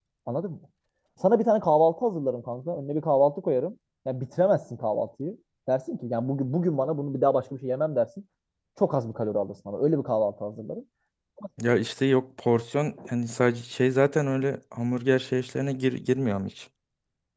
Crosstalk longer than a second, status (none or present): none